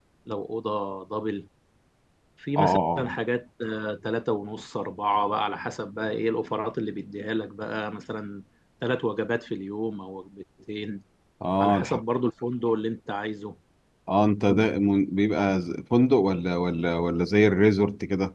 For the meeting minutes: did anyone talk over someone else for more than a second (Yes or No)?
No